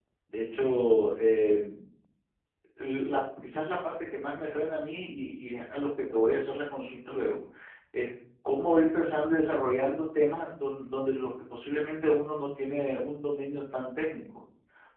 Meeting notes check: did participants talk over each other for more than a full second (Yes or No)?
No